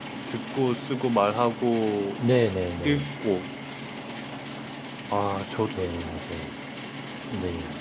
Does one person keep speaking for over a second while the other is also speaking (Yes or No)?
No